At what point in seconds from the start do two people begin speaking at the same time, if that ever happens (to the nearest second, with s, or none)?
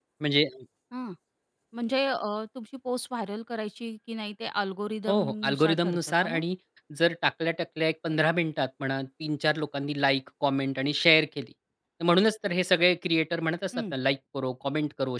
5 s